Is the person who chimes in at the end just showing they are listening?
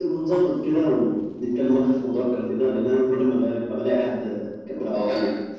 No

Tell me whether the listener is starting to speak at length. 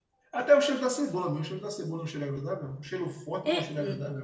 Yes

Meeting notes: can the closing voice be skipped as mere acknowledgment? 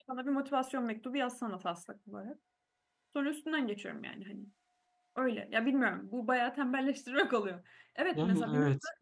Yes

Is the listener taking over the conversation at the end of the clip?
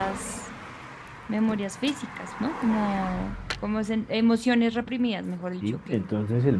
Yes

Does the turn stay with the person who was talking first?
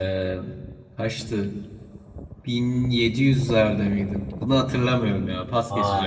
No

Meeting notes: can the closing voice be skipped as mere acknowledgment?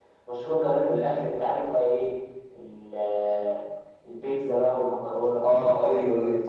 No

